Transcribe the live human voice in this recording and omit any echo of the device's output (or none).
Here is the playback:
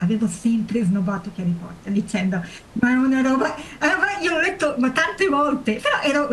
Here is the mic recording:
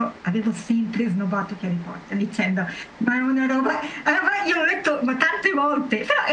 none